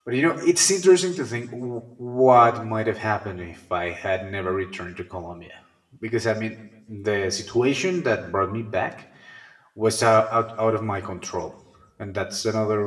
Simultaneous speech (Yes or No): No